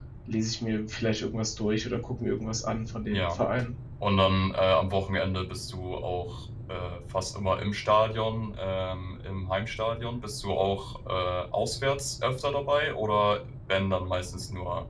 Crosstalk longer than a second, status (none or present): none